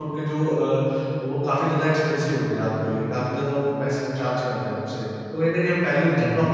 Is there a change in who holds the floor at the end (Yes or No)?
No